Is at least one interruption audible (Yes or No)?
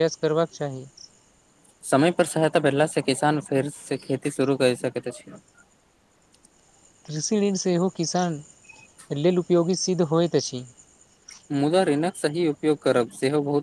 No